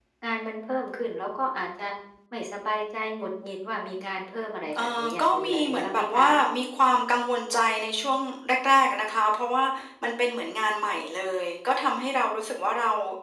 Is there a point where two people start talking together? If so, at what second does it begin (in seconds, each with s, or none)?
4.7 s